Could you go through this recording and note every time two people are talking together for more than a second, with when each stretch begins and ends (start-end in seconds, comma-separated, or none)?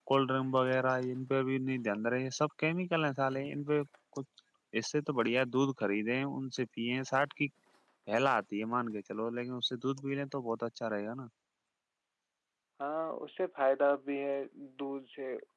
none